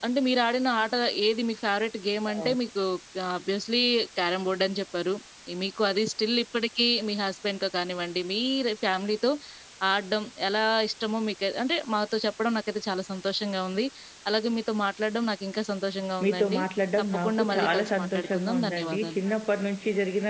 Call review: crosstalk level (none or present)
present